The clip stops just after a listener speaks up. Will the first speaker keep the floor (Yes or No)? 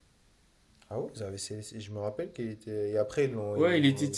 No